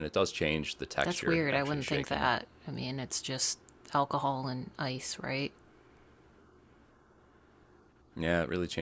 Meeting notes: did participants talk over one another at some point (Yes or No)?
Yes